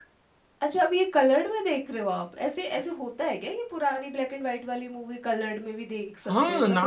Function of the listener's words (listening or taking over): taking over